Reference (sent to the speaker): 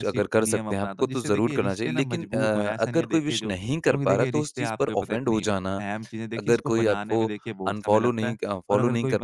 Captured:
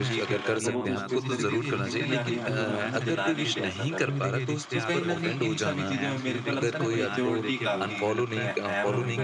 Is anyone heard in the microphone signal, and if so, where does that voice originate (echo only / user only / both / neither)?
both